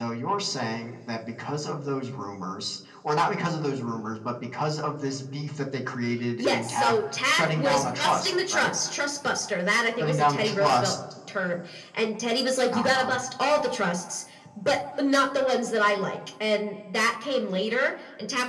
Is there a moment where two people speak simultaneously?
Yes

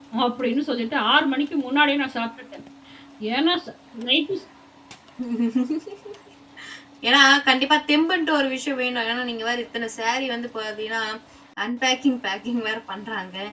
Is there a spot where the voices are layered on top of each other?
No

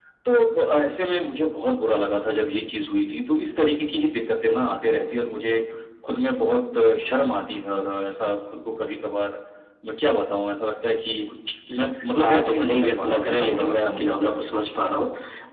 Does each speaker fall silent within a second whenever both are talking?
No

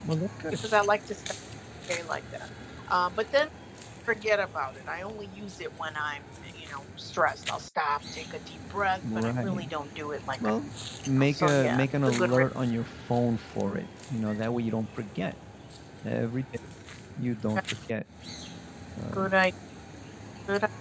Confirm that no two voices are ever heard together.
No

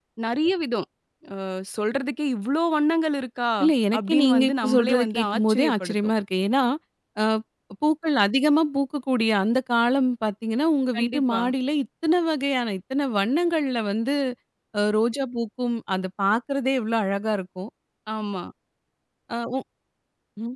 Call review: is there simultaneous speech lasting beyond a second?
Yes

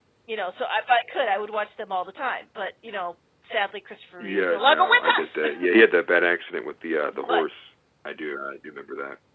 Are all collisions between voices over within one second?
No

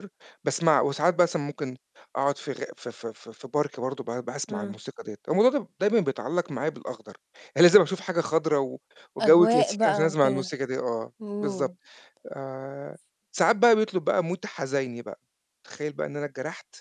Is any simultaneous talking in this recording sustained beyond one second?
Yes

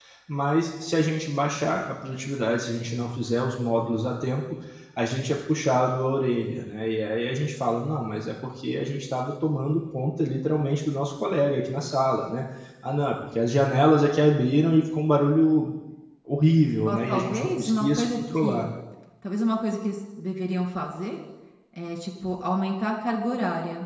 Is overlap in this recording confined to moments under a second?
No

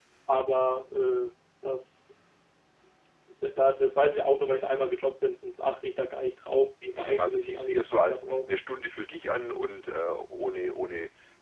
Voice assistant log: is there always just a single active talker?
No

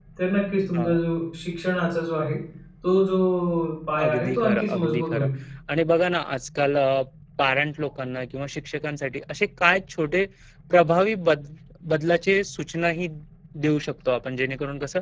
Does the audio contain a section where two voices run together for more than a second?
Yes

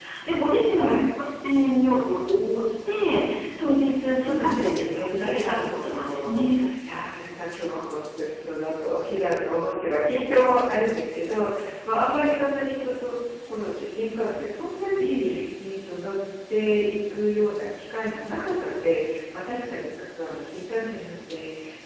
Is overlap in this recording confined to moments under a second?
No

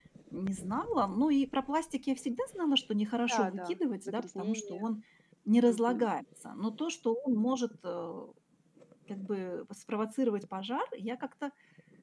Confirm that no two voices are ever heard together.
No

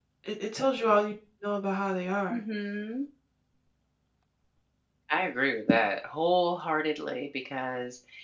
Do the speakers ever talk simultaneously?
No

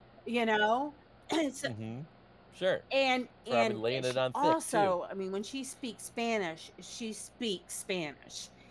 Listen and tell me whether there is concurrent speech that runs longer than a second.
Yes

